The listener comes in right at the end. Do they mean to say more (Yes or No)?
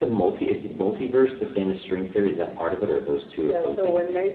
Yes